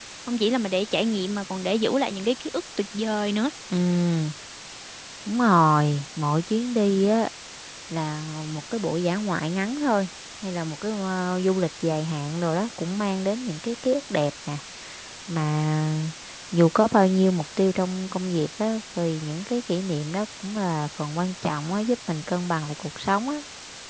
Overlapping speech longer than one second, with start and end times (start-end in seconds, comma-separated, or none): none